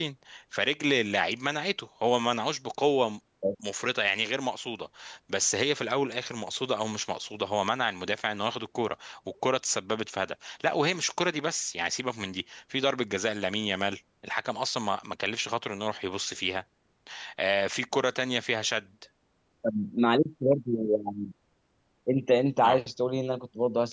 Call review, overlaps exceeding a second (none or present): none